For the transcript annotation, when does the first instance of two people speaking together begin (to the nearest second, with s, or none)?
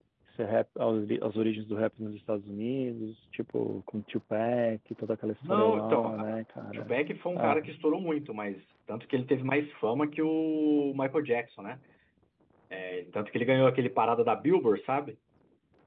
5 s